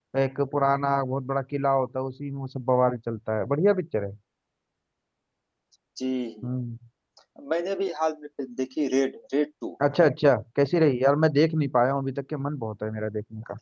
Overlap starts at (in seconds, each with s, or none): none